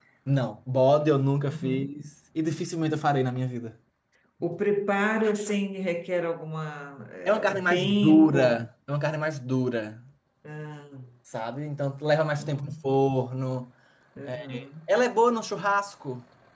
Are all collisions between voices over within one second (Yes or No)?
No